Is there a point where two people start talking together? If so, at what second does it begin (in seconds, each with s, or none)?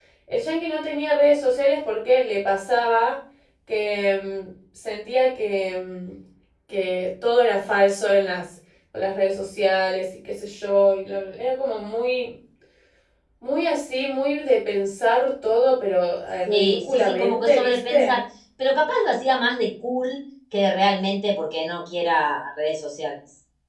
16.5 s